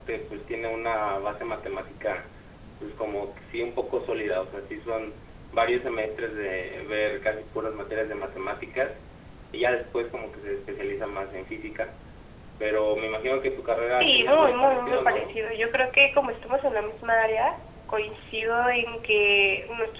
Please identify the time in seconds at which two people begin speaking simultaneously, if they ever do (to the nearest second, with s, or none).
14 s